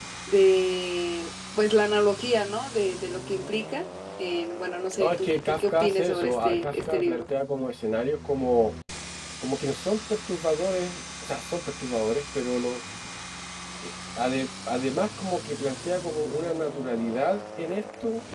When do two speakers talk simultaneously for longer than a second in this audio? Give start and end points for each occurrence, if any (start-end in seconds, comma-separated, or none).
5.0-7.2